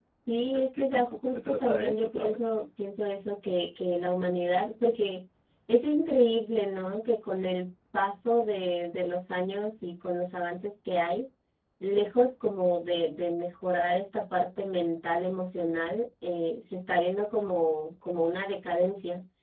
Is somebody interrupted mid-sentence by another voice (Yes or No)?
Yes